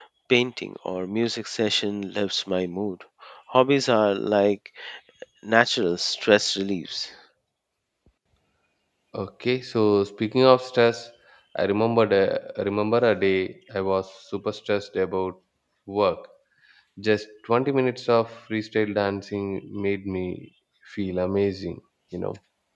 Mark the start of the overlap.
none

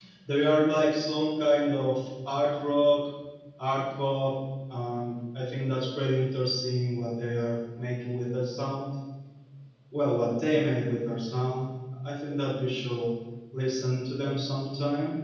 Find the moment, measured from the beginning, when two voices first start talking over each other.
none

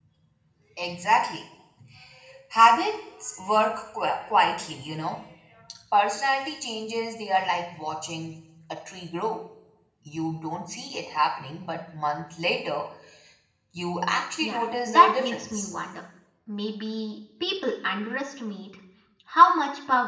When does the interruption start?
14 s

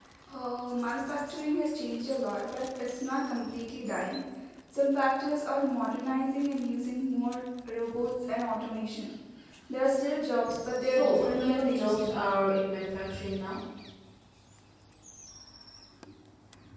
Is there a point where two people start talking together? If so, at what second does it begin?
11 s

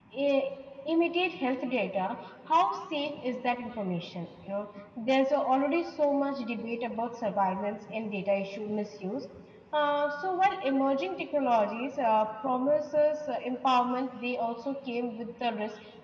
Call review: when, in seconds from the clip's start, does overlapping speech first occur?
none

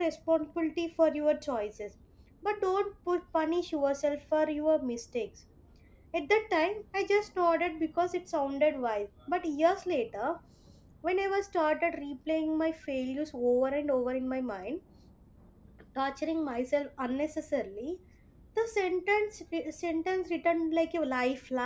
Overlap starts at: none

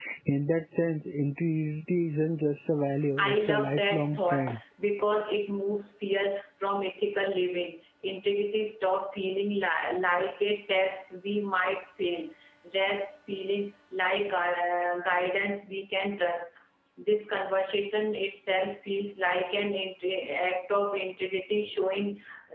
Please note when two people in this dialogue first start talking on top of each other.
3 s

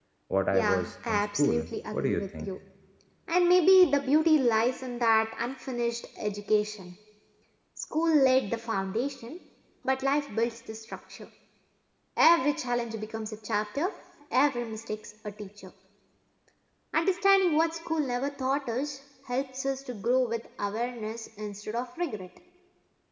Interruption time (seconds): 1 s

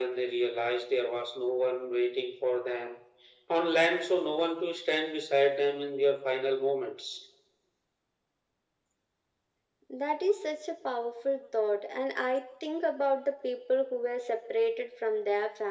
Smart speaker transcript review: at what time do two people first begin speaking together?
none

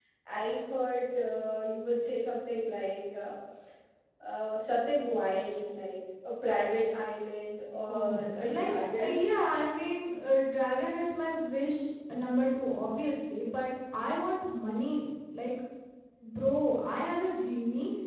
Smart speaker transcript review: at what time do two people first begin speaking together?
8 s

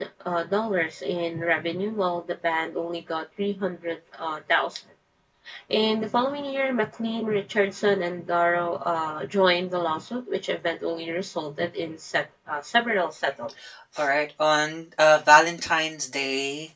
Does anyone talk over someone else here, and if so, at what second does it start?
none

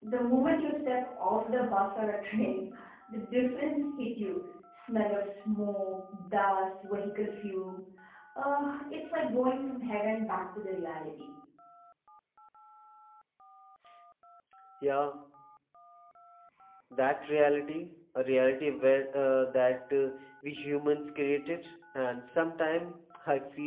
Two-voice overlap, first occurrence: none

